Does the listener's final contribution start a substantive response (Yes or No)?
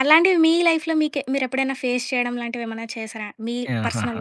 Yes